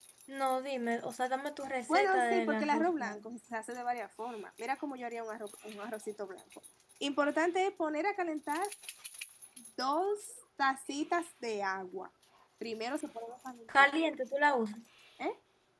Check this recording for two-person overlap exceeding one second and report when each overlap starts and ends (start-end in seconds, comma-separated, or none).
1.9-3.1